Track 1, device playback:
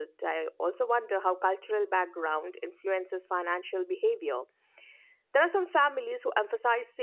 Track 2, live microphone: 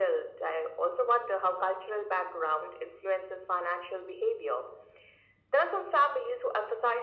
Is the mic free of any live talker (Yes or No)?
Yes